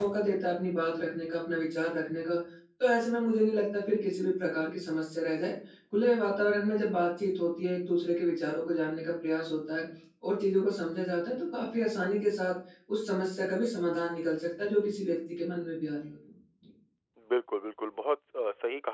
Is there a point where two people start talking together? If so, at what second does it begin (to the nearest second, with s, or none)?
none